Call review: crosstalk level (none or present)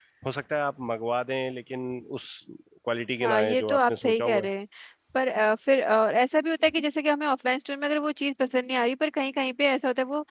present